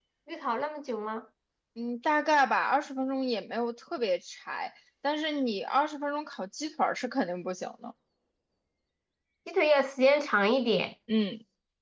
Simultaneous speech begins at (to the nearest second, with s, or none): none